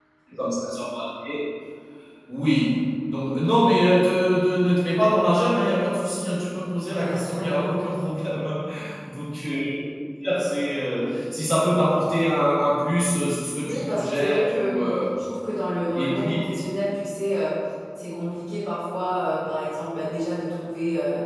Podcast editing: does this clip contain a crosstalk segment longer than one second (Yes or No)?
Yes